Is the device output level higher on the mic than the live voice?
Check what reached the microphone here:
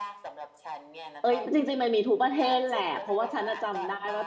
No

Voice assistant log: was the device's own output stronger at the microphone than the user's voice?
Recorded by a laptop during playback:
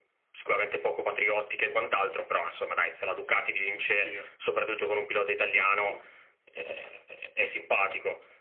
Yes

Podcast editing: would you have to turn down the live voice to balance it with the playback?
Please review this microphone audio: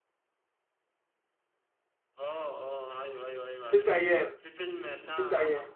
Yes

